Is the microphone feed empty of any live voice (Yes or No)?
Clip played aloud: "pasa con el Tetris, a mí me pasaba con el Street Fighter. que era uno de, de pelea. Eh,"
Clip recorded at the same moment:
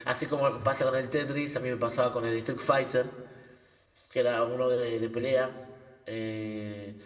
Yes